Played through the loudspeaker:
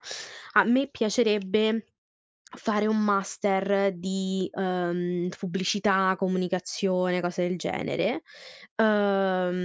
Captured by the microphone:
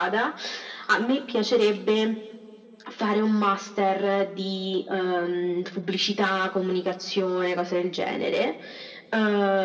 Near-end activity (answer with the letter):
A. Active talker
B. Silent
B